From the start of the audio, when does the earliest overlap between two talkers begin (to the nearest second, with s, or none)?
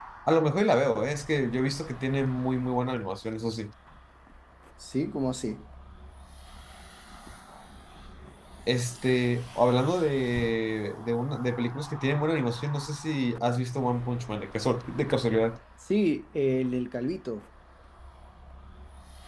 none